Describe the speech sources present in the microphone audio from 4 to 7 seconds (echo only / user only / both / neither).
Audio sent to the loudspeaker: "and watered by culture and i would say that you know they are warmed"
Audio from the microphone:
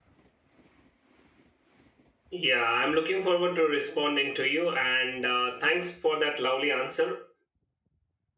user only